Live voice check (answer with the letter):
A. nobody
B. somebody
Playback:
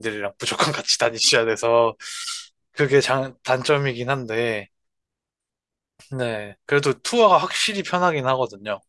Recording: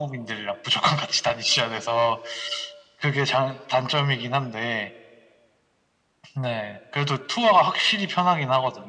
A